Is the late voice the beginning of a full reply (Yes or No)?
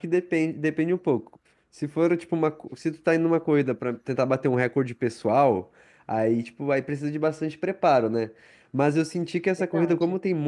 No